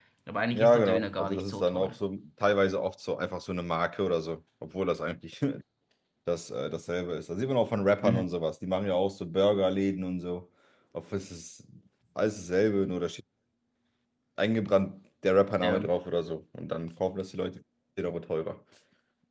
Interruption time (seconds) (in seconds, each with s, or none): 0.5 s